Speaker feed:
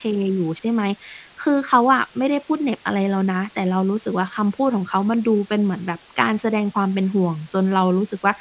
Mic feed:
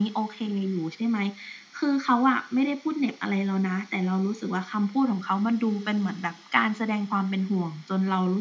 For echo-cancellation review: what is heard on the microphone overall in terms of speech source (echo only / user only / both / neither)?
echo only